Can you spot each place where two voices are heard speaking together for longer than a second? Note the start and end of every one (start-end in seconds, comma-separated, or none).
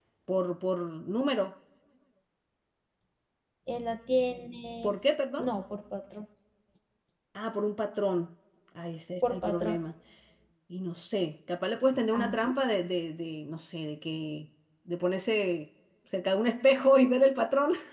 none